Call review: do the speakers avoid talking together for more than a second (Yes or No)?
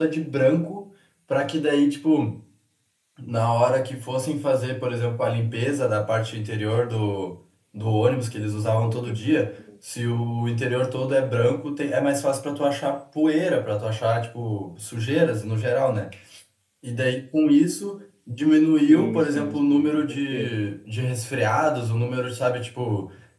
No